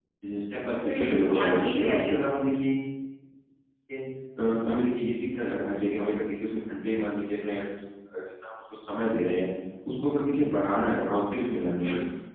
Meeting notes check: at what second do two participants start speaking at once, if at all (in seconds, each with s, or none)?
0.8 s